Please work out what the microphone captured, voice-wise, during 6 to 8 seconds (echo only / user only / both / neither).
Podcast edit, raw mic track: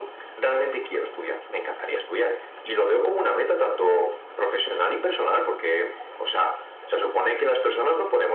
echo only